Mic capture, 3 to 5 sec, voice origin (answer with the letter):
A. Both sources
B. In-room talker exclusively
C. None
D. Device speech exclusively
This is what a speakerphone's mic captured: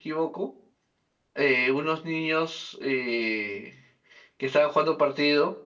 B